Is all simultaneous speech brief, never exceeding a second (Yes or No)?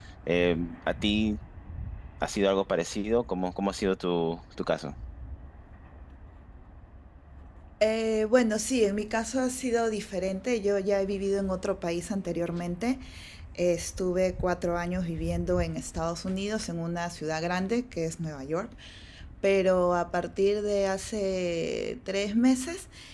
Yes